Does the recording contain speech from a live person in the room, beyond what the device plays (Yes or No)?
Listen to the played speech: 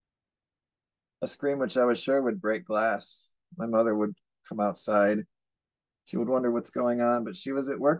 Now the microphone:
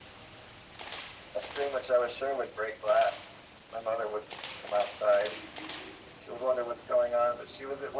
No